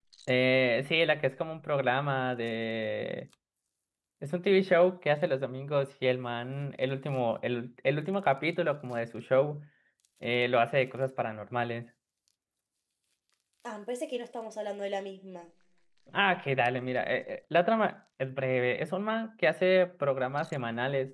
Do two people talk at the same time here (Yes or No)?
No